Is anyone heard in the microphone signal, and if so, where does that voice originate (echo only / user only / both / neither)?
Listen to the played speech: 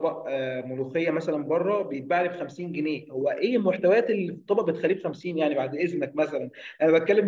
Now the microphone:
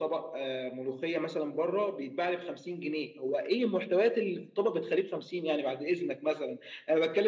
echo only